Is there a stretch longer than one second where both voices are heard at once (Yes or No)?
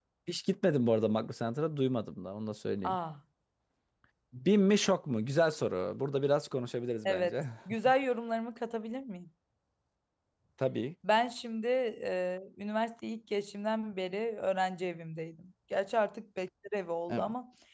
No